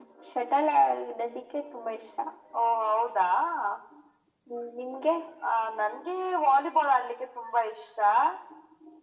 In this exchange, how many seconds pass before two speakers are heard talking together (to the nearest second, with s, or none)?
none